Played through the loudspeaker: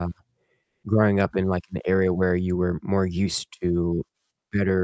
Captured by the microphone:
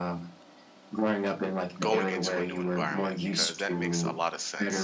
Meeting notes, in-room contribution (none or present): present